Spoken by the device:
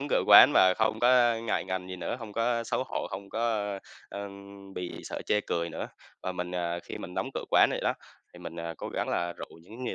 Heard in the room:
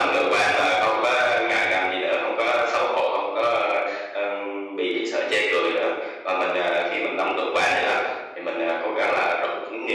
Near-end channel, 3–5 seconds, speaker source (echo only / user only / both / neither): echo only